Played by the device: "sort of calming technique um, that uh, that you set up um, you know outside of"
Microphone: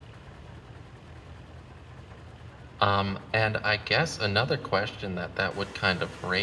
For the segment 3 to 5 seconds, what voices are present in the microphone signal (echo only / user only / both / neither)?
user only